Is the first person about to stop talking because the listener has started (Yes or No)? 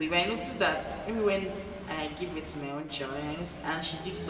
No